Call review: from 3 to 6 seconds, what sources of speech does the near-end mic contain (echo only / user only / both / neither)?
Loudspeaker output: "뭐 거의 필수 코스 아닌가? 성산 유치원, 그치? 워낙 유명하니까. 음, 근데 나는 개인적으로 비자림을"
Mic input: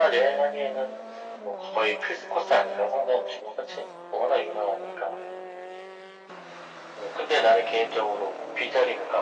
echo only